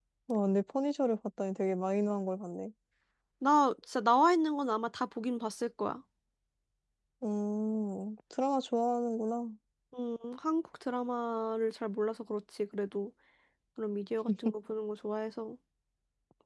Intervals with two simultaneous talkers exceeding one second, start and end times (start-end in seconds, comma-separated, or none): none